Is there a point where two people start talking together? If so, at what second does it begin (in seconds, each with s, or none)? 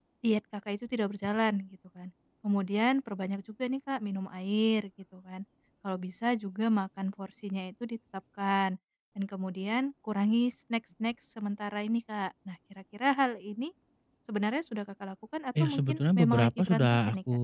15.6 s